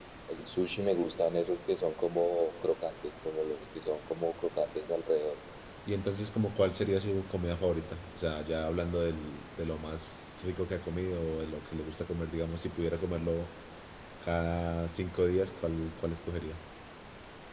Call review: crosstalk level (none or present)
none